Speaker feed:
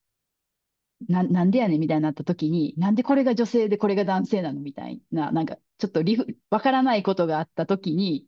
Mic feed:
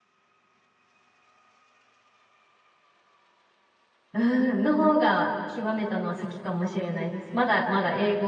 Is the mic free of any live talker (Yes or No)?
No